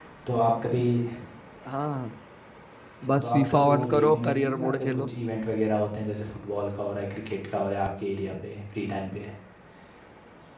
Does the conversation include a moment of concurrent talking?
Yes, from 3.1 s

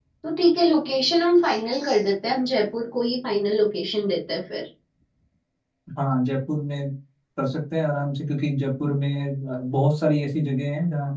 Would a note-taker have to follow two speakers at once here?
No

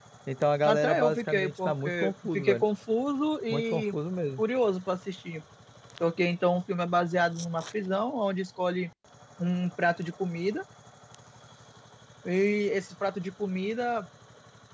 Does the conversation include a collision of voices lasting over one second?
Yes, from 0.6 s

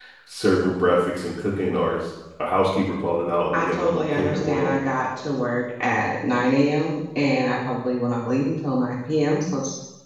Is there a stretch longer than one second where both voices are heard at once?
Yes, from 3.5 s

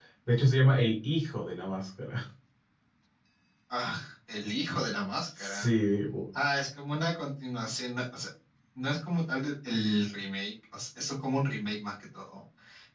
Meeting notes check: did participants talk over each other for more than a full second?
No

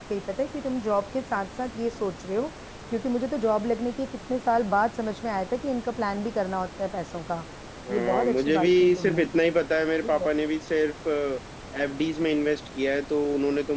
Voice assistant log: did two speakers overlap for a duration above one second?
Yes, from 7.9 s

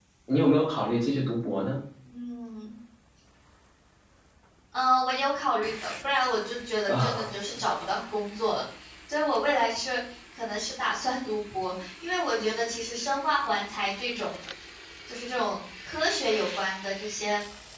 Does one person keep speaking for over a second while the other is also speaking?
No

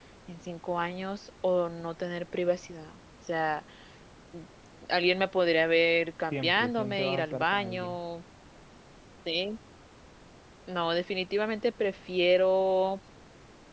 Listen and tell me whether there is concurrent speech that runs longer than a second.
Yes, from 6.3 s

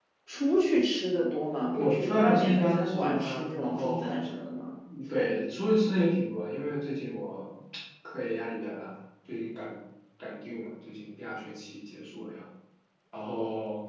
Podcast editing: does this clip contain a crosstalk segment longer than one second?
Yes, from 1.7 s

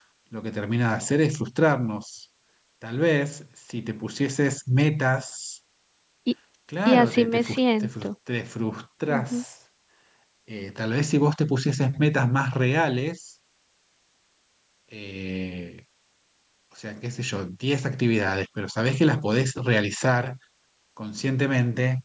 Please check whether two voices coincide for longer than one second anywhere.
Yes, from 6.8 s

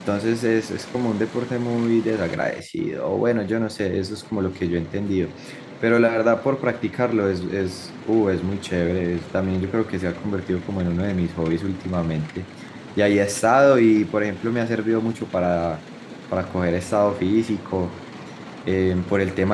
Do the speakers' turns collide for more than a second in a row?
No

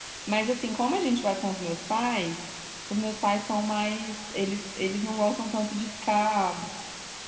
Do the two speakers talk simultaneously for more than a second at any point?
No

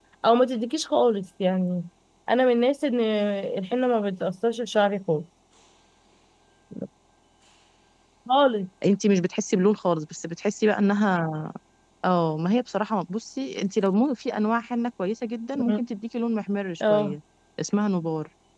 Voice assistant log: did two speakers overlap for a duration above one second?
No

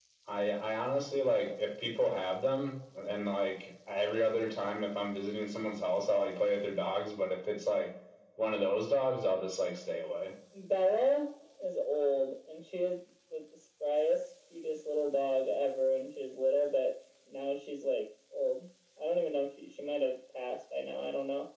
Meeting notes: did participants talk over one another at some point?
No

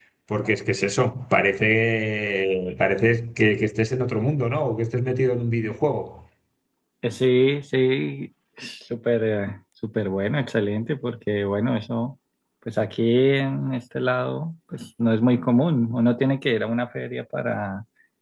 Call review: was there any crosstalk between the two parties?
No

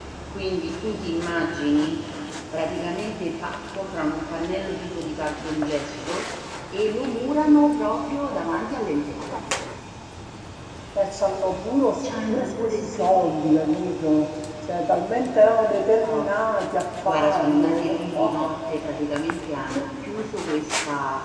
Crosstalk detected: Yes, from 12.0 s

